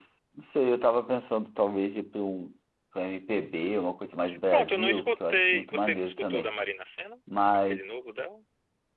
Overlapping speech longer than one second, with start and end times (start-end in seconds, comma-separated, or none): 4.5-6.5